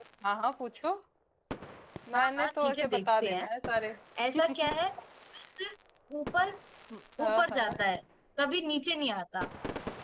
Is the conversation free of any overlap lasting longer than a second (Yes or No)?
No